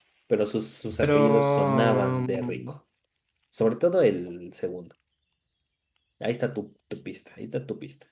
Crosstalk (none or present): present